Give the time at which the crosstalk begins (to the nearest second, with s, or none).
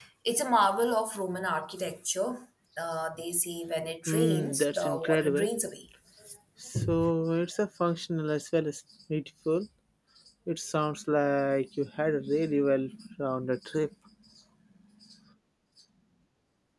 4 s